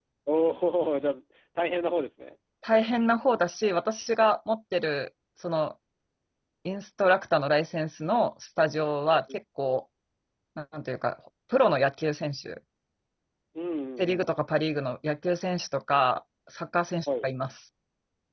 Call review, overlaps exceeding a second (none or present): none